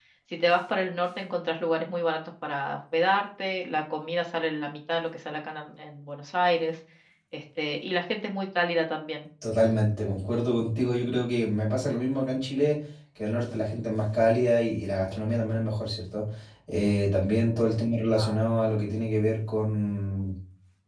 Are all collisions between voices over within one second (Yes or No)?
Yes